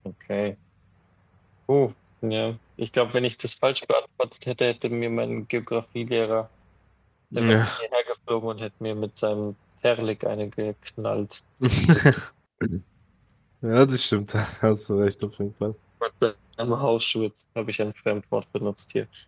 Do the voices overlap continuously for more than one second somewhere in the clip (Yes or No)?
No